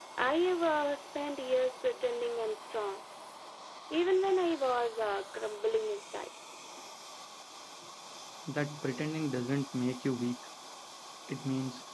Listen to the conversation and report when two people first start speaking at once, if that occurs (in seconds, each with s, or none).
none